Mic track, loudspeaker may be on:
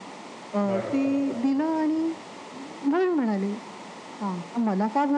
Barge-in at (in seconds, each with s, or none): 0.7 s